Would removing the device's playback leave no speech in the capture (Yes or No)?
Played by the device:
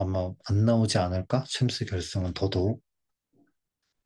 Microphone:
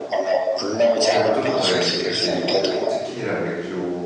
No